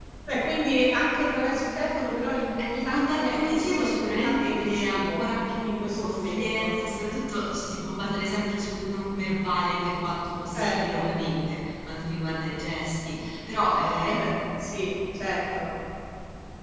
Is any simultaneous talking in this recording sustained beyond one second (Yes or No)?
Yes